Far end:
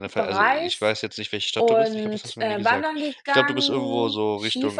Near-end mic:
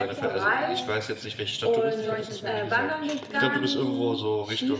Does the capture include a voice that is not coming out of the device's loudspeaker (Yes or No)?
Yes